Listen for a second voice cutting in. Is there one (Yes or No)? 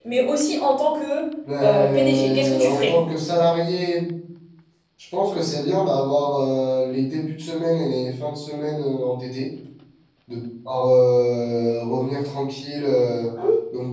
Yes